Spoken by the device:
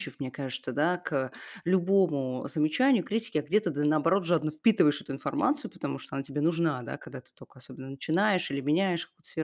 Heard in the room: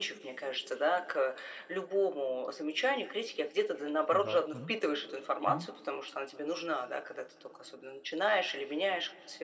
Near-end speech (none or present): present